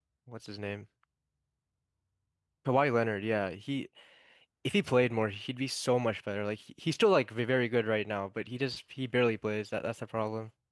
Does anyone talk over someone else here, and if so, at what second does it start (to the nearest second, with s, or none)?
none